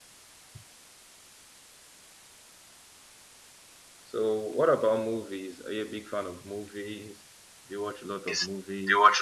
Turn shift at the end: Yes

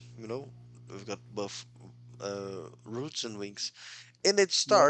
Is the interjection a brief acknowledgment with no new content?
Yes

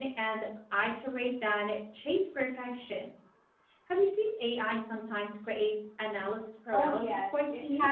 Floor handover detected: Yes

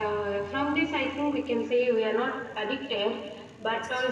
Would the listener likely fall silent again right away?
Yes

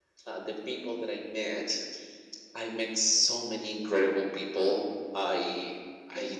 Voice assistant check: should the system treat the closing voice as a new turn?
No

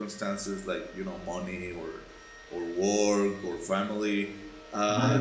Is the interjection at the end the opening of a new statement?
Yes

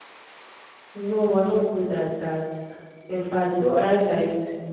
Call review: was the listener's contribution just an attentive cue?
Yes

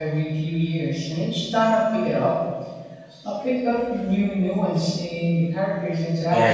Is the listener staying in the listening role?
No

